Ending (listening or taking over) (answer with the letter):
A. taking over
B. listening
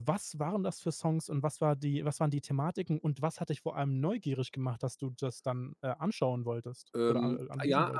A